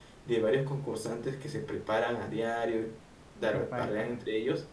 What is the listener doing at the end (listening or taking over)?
listening